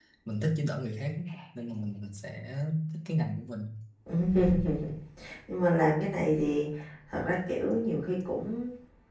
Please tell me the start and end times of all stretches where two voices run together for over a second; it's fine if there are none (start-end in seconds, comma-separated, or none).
none